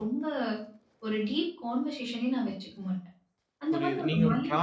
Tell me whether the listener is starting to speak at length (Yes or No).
Yes